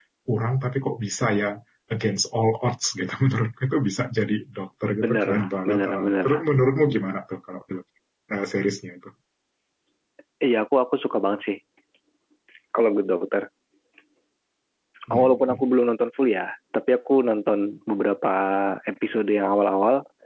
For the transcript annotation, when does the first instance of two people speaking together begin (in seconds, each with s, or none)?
5.0 s